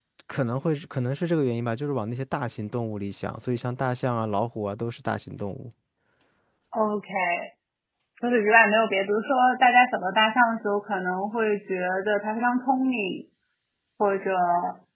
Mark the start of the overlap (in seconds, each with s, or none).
none